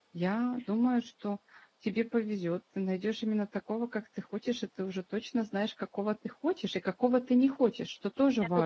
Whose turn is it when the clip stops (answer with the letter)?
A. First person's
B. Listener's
B